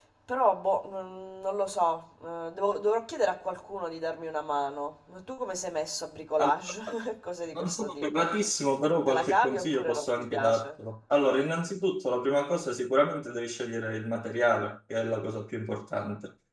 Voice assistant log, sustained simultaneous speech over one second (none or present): present